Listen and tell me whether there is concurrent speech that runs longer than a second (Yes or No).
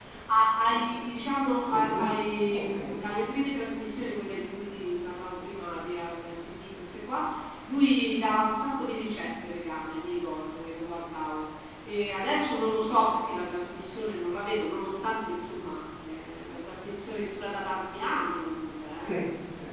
No